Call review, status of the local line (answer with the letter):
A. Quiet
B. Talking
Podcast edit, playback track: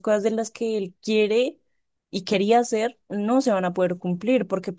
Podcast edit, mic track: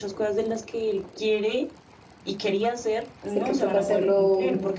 B